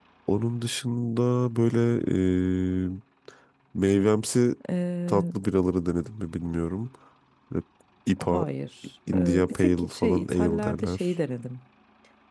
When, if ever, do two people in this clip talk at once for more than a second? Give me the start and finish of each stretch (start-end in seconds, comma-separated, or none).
9.1-11.1